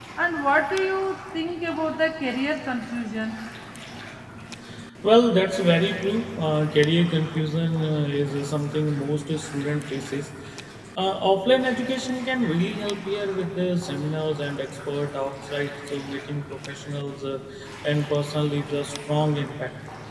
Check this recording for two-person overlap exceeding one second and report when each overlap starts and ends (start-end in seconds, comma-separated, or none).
none